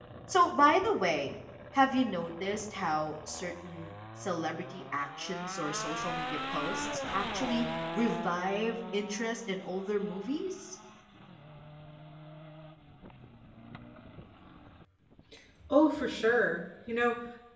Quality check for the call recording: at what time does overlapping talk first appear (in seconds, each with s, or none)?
none